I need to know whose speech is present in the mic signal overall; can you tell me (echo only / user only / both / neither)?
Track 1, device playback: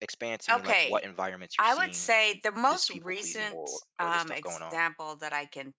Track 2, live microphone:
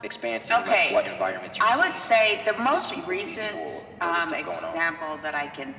echo only